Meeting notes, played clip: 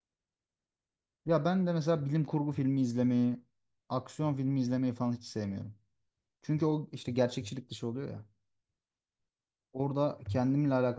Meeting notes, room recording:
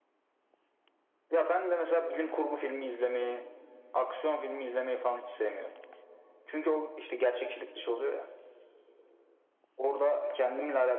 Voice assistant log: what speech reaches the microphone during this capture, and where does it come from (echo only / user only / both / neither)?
echo only